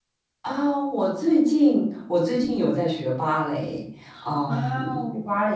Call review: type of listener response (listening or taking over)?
listening